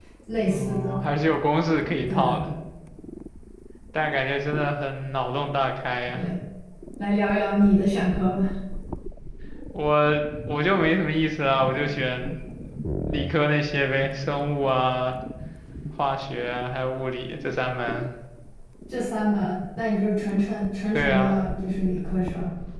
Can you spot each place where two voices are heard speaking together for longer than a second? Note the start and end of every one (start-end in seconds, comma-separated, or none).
none